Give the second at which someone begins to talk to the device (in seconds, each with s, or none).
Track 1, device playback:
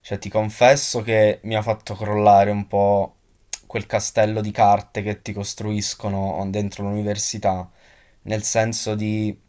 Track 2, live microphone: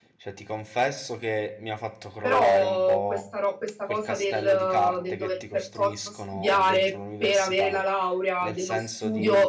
2.2 s